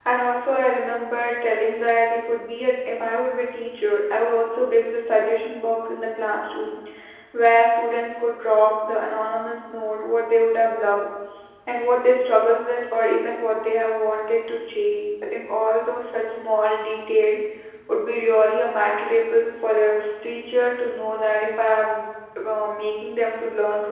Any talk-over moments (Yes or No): No